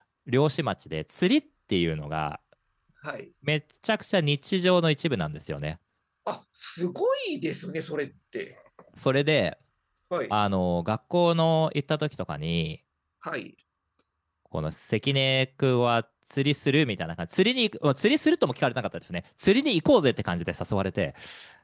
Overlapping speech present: No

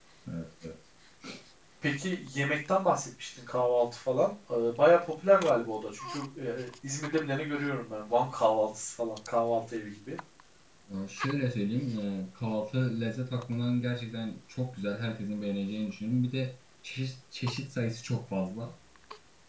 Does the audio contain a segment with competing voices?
No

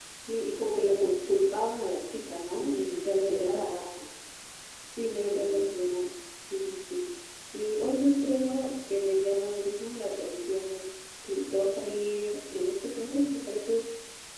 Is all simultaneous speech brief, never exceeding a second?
No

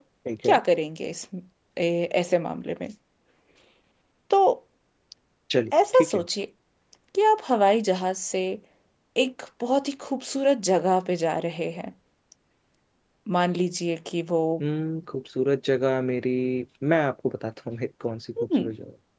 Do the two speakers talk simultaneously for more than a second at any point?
No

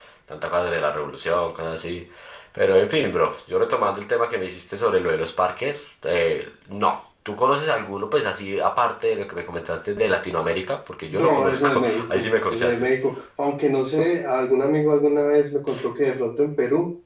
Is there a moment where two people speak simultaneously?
Yes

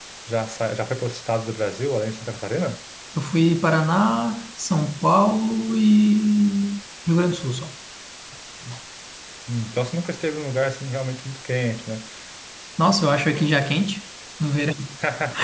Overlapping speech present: No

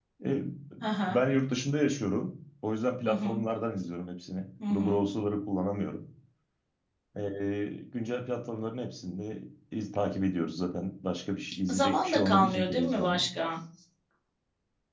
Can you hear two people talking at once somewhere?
Yes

